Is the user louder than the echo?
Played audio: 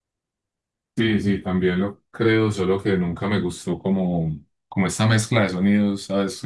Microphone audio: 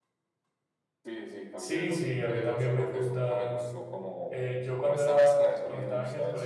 Yes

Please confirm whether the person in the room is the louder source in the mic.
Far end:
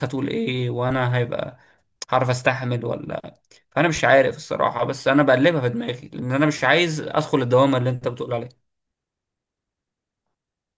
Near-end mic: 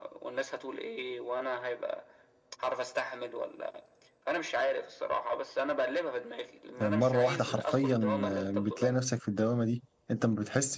Yes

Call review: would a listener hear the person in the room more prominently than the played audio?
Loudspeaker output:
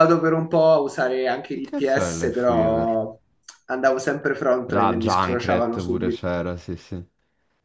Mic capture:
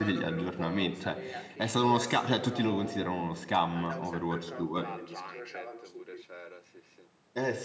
Yes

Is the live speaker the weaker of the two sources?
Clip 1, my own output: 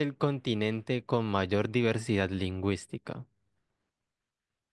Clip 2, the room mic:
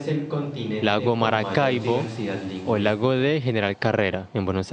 No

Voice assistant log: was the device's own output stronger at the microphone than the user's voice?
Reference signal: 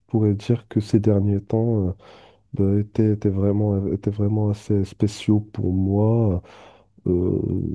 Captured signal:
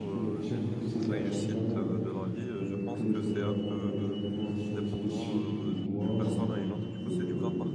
Yes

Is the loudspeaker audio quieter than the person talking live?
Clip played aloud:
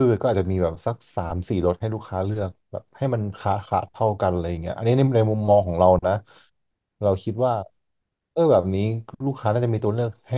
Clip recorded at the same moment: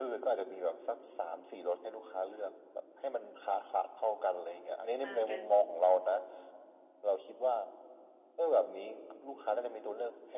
No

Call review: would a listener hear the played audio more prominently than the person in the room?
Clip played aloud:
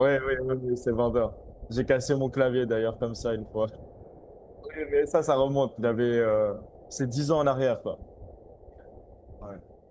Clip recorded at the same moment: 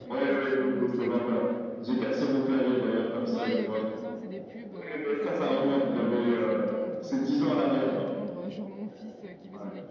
Yes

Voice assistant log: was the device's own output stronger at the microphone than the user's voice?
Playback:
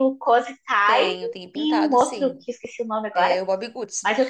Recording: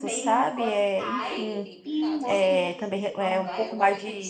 No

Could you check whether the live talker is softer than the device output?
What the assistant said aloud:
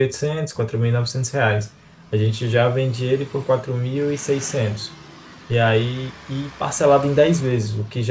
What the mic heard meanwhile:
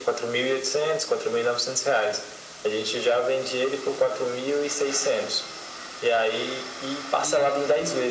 Yes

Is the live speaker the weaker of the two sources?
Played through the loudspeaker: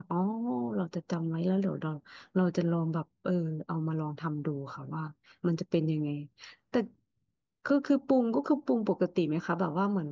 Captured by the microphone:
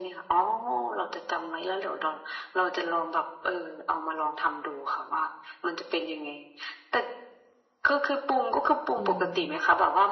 Yes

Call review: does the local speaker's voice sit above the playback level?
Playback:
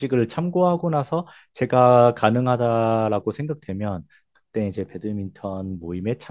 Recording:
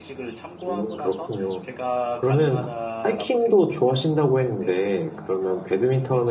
Yes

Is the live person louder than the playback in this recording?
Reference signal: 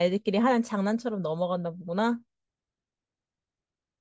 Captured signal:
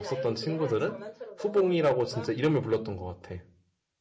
Yes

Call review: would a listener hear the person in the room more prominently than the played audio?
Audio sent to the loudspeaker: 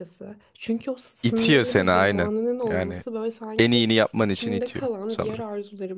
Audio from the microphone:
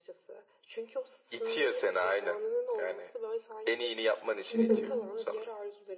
Yes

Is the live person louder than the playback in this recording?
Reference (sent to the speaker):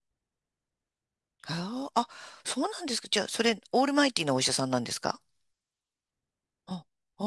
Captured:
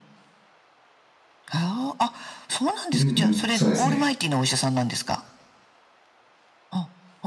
Yes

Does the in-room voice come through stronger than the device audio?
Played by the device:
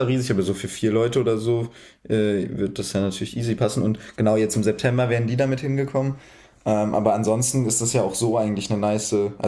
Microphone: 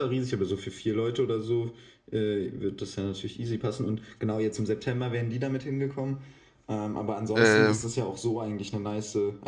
Yes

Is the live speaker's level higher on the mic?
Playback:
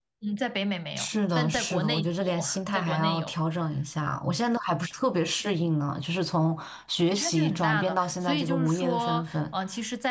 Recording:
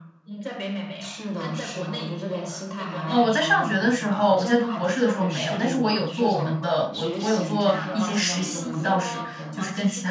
Yes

